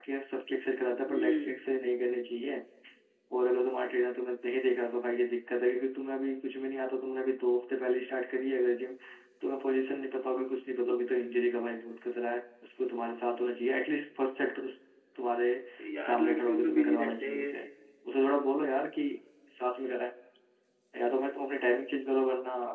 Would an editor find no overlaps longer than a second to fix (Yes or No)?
No